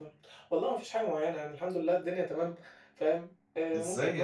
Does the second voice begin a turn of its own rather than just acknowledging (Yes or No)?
Yes